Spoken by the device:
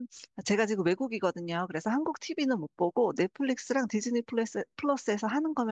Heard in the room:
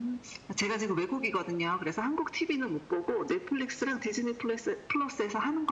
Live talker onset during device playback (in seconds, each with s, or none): none